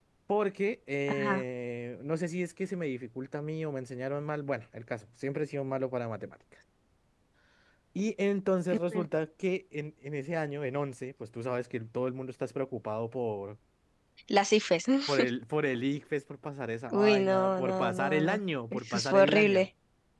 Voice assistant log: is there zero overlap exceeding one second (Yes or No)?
No